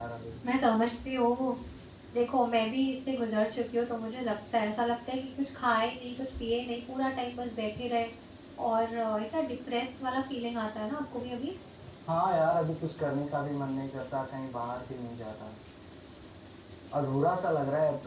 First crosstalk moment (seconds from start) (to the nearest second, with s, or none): none